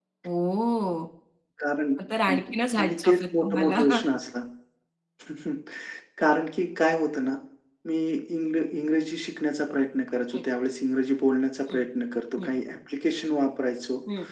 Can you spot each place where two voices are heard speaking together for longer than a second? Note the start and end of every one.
2.3-3.8

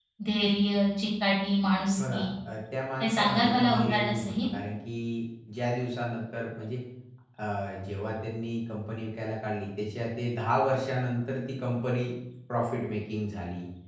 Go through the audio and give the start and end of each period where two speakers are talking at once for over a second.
3.0-4.5

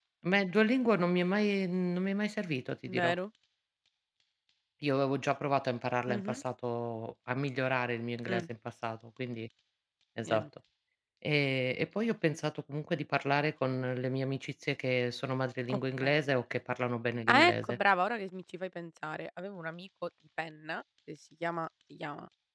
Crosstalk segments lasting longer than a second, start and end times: none

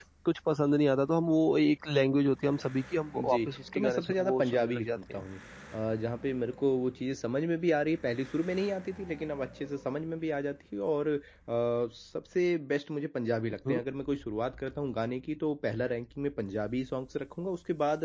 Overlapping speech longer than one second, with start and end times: 3.1-5.2

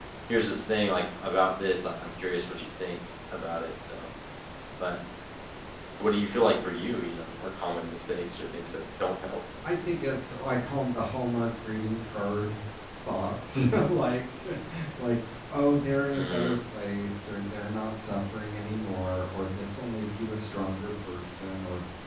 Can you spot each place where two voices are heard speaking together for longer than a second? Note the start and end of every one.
none

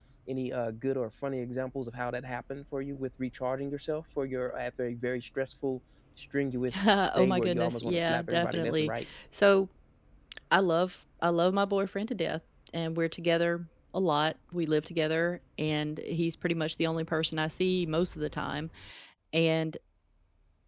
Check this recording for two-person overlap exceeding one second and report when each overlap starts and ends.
6.8-8.9

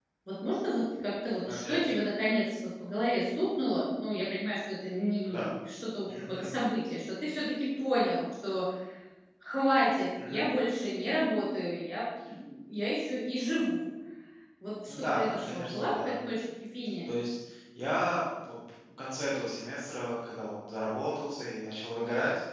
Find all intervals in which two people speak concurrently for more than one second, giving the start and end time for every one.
14.9-16.1

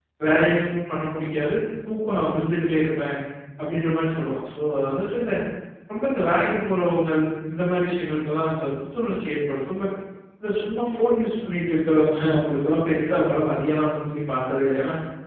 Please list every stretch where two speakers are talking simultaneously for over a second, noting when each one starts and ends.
none

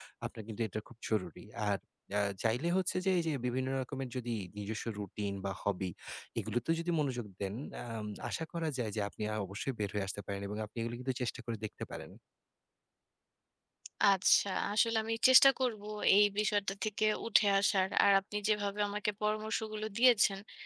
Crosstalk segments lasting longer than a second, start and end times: none

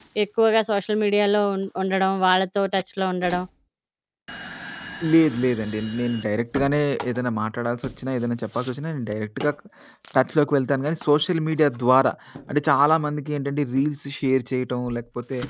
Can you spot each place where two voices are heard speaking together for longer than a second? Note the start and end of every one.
none

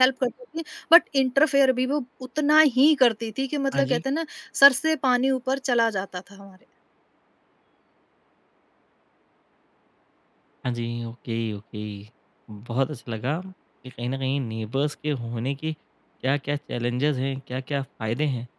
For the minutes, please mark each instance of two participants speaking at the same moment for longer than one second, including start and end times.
none

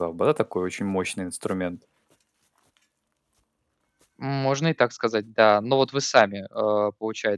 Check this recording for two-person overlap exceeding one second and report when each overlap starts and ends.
none

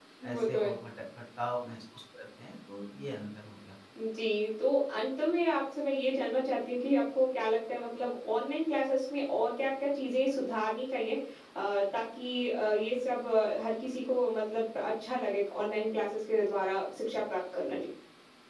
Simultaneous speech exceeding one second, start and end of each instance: none

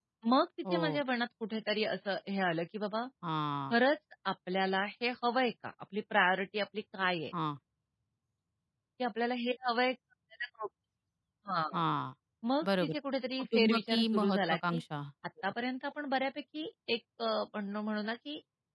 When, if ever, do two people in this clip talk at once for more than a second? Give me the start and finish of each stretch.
13.5-14.8

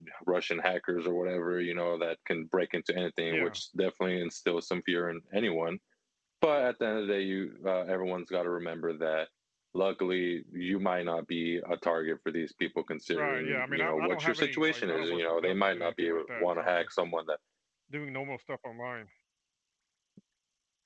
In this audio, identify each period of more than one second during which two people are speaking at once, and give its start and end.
13.1-16.9

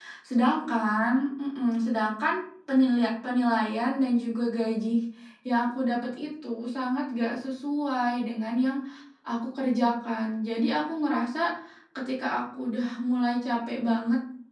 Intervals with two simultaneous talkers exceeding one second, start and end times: none

